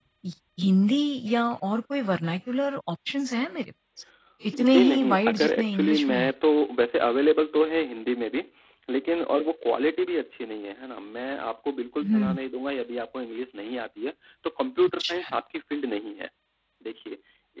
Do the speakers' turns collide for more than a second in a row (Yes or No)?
Yes